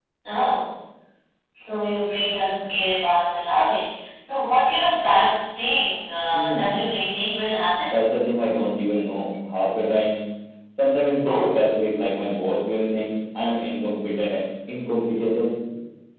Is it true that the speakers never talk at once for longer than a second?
Yes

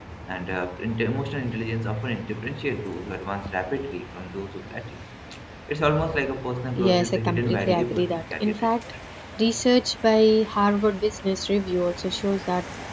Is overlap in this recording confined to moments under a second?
No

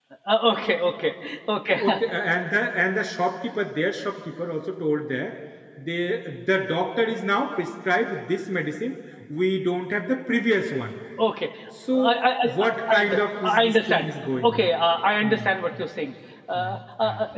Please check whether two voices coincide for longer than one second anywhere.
Yes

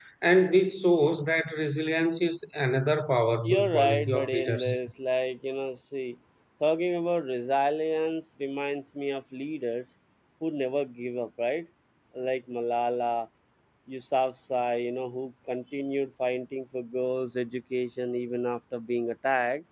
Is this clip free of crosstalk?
No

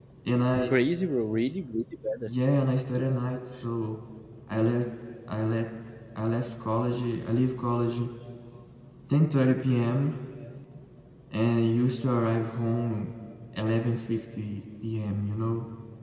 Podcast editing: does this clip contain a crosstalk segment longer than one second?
No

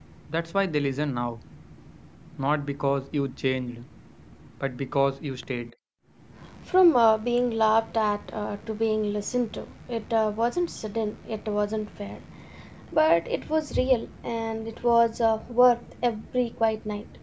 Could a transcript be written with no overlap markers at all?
Yes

